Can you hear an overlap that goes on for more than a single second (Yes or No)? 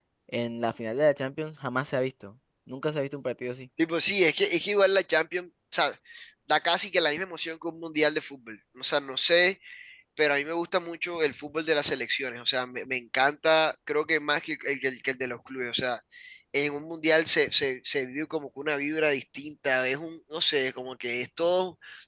No